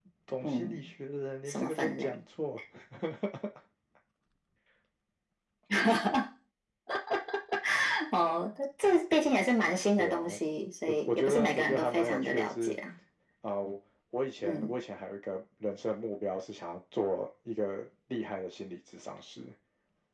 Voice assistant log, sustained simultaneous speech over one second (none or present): present